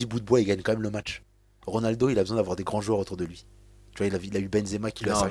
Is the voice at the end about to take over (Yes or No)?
Yes